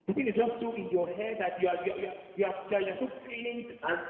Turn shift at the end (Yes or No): Yes